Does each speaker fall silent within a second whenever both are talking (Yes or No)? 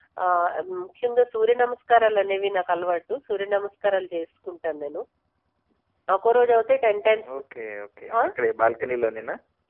Yes